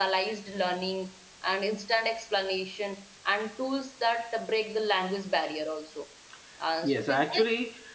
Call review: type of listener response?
taking over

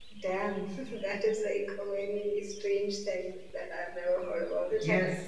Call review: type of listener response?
taking over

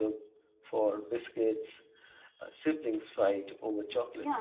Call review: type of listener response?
taking over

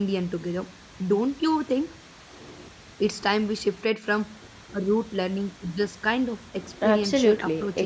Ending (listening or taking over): taking over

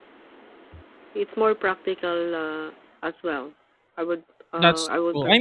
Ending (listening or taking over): taking over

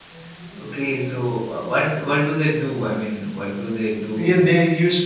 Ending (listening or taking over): taking over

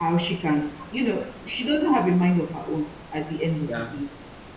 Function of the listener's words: listening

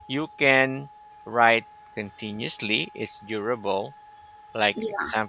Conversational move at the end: listening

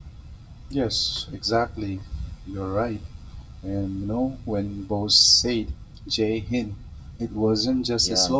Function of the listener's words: listening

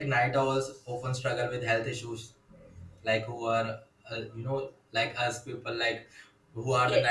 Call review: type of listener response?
listening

